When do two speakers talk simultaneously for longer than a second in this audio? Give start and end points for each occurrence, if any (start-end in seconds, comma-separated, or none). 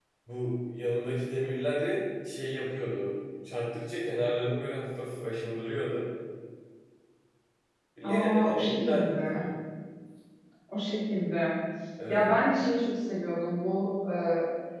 8.0-9.5